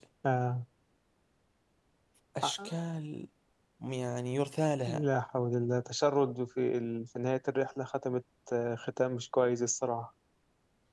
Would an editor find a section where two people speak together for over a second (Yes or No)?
No